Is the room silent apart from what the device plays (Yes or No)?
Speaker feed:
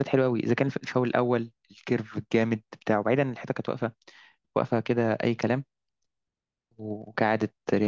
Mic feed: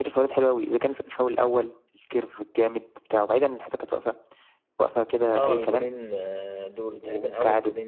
No